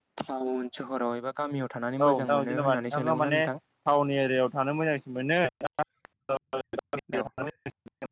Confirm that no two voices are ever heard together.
No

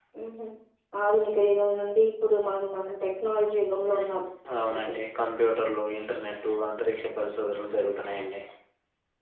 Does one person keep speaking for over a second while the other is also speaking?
No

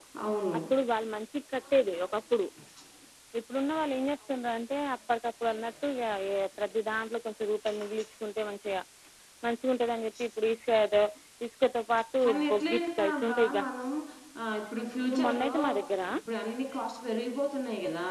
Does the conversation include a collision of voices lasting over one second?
Yes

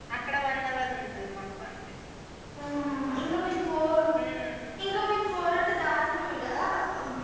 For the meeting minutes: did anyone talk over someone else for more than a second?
No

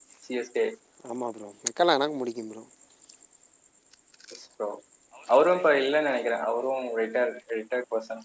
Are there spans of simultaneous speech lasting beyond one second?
No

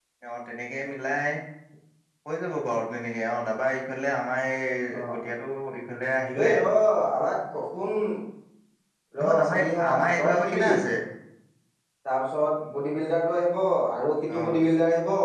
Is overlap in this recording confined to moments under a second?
No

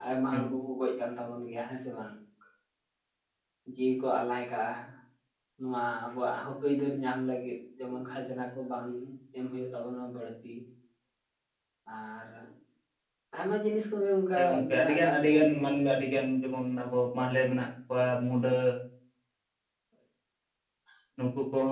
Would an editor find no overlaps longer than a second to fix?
No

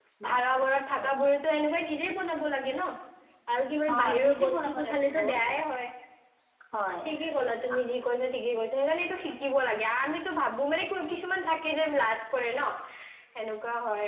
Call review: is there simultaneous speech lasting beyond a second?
Yes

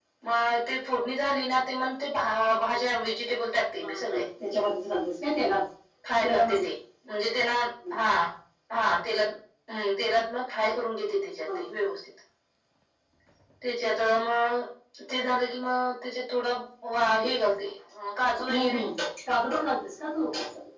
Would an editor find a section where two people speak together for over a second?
No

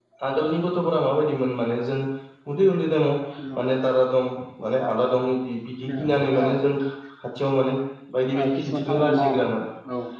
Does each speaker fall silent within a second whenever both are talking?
No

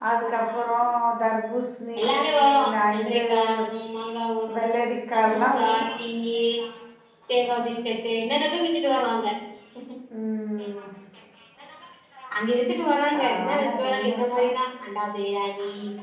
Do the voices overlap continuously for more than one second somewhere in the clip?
Yes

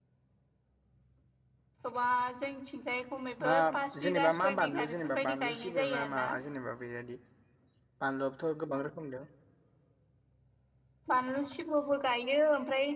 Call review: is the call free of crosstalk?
No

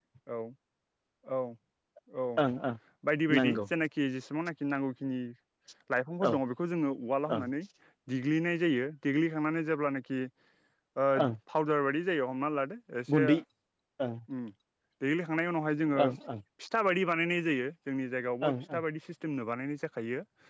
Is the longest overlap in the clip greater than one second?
No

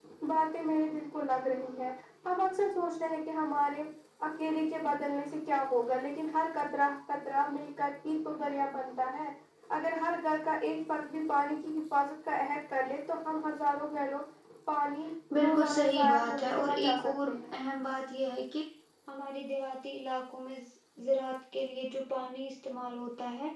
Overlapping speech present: Yes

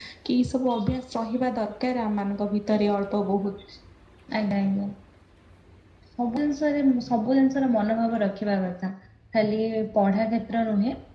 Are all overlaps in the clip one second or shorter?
Yes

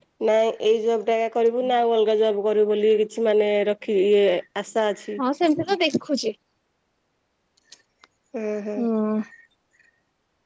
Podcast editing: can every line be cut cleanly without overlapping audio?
Yes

